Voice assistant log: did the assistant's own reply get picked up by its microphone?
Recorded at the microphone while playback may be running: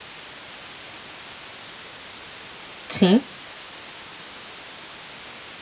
No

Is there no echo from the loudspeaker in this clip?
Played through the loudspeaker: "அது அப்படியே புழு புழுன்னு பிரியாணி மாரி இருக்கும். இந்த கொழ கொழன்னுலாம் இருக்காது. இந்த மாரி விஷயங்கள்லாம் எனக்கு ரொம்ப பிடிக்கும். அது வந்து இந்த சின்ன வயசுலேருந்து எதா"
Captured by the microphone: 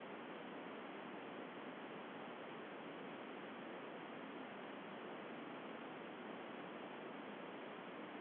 Yes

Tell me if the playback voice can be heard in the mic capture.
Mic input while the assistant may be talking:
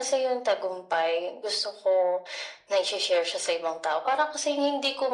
Yes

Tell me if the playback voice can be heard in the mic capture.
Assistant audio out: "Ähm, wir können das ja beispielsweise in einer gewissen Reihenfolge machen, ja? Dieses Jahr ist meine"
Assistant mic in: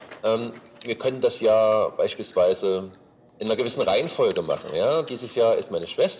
Yes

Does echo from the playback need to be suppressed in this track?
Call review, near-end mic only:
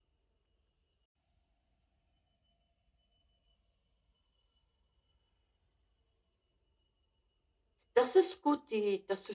No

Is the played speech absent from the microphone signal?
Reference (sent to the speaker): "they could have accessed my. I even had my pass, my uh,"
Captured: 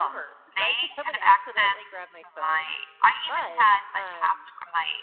No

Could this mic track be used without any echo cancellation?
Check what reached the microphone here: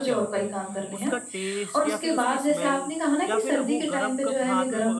No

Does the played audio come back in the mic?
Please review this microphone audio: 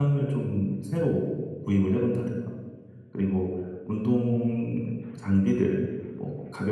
No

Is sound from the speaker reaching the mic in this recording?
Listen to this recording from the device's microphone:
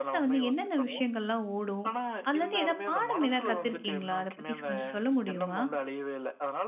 Yes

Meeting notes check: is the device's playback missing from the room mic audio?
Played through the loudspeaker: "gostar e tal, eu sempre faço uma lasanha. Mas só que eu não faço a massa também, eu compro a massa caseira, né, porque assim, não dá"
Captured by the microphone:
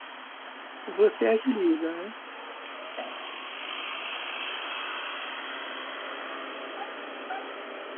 Yes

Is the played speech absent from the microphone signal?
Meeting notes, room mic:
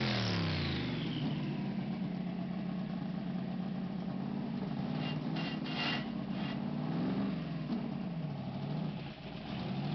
Yes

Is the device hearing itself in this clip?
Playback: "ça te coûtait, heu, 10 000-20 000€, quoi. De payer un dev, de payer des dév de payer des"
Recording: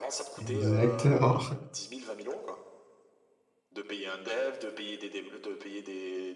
Yes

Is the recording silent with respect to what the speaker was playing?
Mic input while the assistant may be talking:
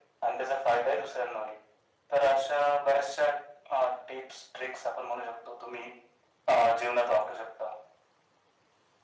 No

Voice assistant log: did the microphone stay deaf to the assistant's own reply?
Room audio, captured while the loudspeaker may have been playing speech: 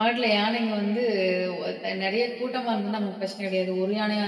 Yes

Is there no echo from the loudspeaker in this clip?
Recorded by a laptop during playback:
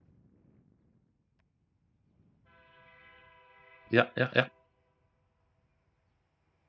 Yes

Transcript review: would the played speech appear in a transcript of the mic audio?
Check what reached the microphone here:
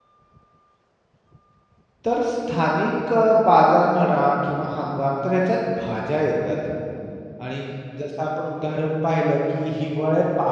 No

